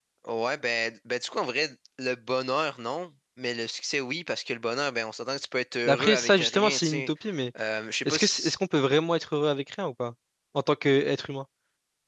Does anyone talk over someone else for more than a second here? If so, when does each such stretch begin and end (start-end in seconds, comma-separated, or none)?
5.9-7.1